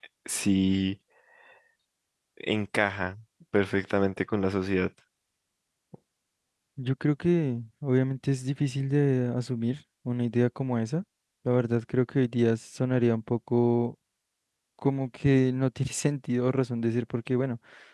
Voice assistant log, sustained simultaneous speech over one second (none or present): none